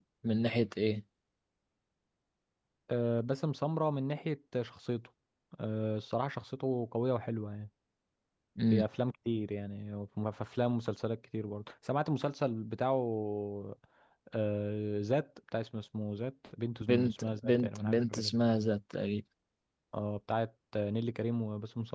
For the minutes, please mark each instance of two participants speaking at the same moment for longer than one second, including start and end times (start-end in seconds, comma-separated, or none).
16.9-18.3